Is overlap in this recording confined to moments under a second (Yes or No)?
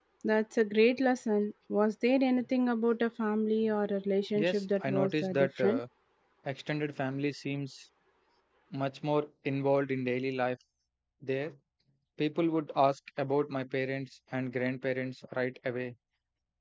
No